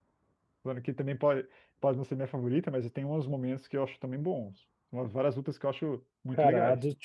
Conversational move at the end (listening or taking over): taking over